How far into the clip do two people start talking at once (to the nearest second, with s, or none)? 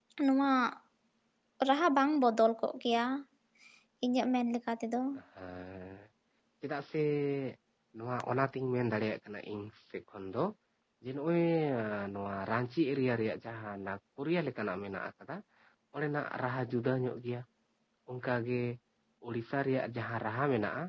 none